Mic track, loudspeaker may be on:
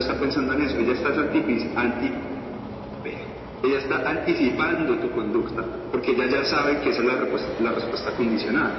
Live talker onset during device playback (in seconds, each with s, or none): none